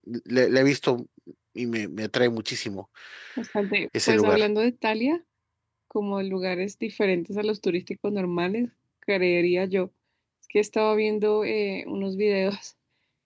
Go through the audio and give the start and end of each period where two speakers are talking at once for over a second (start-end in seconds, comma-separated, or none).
none